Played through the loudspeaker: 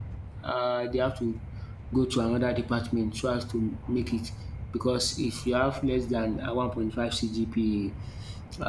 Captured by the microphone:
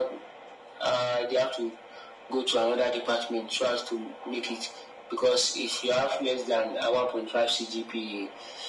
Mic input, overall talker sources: echo only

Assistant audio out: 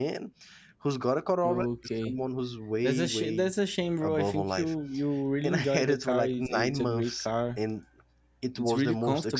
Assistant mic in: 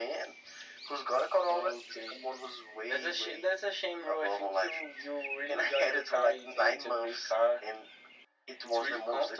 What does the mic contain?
echo only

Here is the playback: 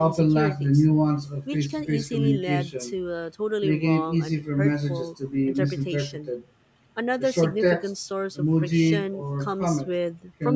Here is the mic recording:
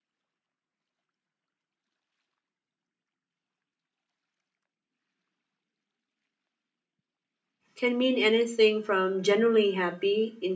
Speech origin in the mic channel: user only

